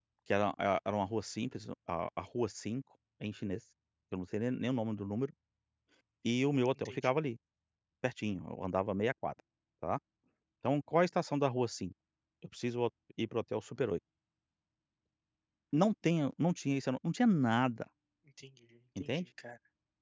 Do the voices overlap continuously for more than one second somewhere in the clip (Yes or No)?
No